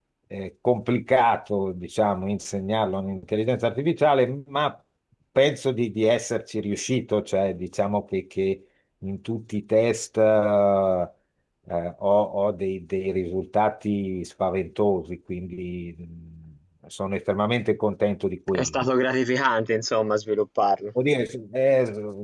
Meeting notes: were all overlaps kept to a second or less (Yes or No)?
Yes